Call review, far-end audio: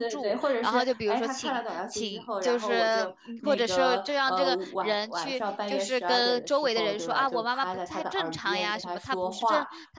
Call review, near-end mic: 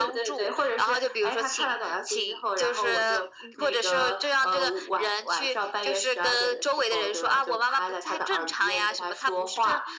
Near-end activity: none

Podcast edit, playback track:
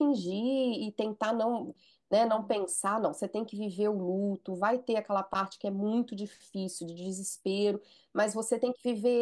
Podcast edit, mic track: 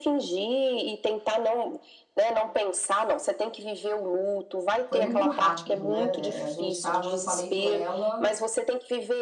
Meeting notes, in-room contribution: present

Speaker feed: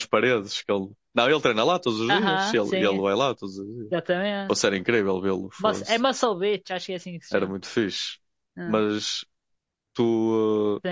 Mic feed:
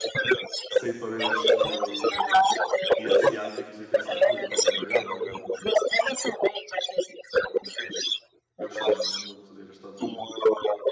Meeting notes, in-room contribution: present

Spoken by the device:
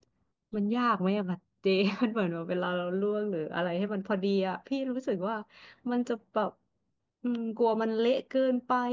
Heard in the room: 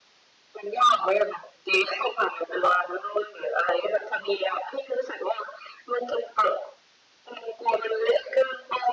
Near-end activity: none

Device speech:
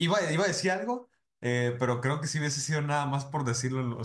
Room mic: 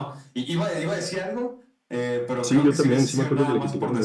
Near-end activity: present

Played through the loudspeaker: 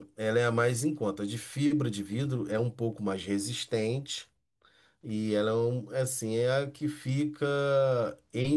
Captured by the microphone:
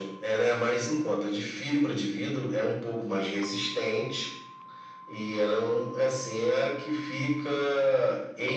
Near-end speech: none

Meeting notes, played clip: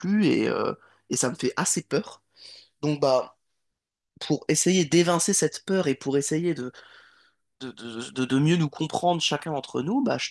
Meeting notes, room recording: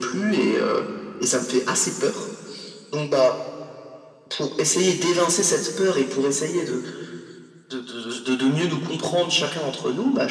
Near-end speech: none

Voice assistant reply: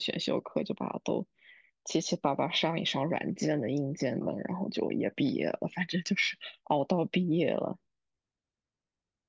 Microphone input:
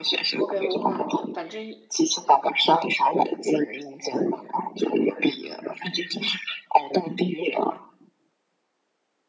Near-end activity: present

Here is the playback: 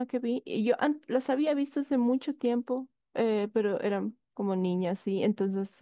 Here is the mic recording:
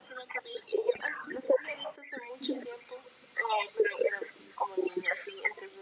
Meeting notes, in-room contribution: none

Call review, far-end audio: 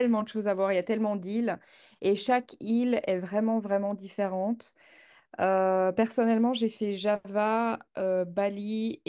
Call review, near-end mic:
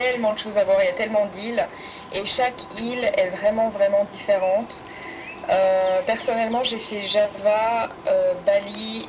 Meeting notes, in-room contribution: none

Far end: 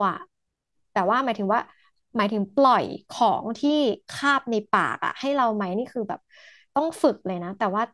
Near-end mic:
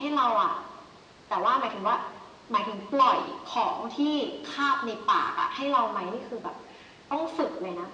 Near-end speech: none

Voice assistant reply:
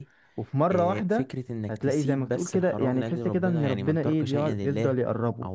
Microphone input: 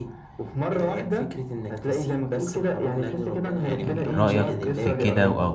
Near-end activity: present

